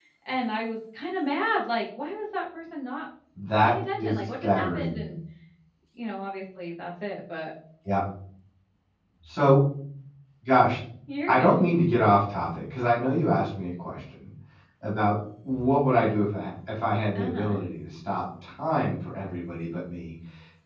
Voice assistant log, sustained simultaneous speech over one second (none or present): present